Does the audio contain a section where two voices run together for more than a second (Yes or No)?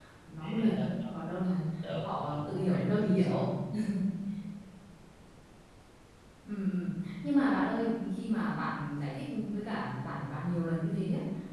Yes